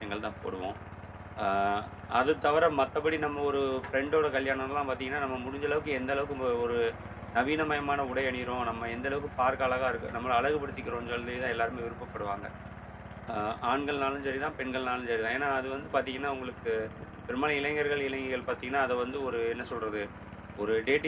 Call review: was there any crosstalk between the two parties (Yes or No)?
No